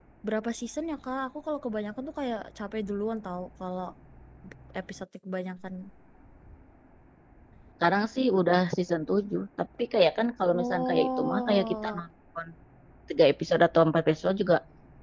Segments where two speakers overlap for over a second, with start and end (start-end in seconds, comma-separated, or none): 10.5-12.0